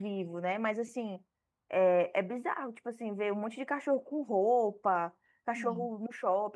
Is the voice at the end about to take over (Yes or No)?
No